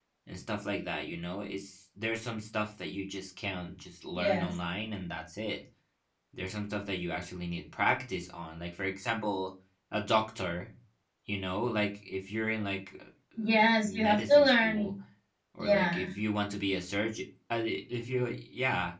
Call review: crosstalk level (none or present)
present